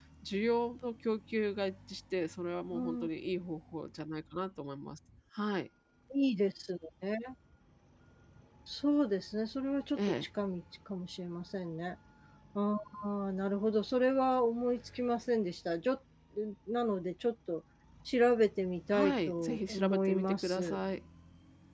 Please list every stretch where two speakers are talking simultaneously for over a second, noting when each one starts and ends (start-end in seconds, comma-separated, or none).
18.9-20.8